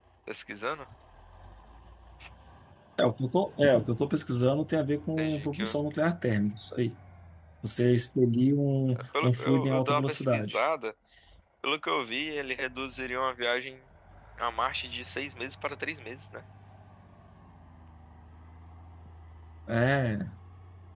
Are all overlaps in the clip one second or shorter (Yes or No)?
No